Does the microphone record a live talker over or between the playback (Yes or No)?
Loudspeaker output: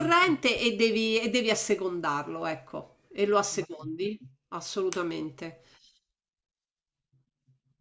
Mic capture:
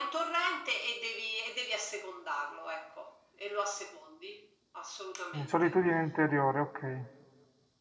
Yes